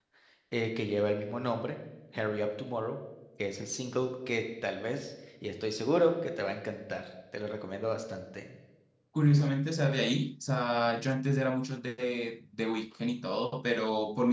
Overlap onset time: none

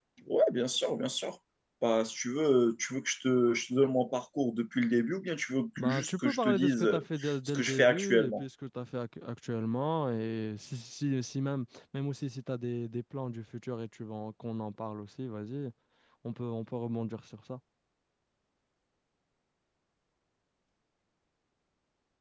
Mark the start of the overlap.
5.8 s

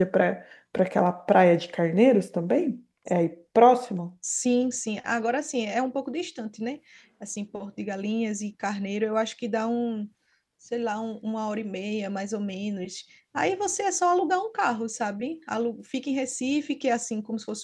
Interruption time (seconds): none

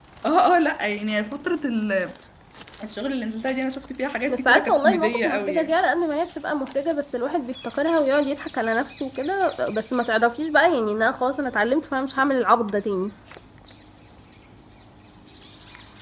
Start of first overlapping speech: 4.3 s

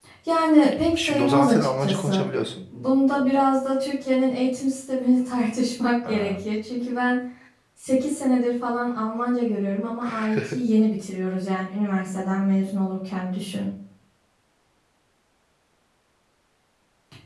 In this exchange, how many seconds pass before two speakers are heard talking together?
1.0 s

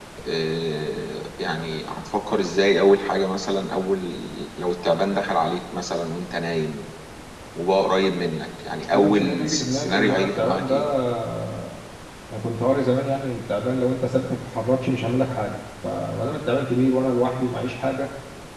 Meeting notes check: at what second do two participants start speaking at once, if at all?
8.9 s

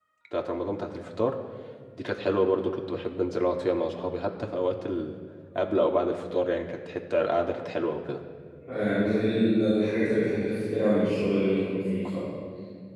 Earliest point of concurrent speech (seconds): none

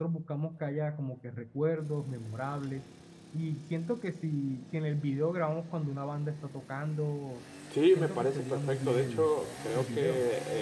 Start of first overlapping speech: 7.9 s

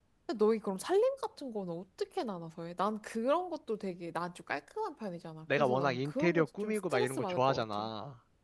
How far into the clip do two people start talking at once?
5.5 s

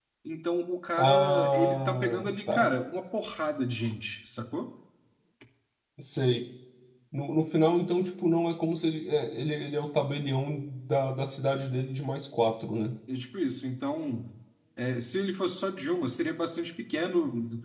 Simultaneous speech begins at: 1.0 s

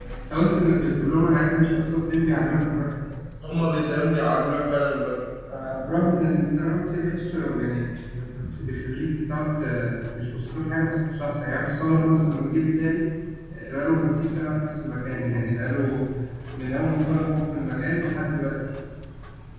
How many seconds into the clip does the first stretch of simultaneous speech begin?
none

